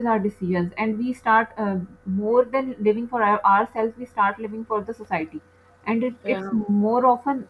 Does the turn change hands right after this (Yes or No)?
No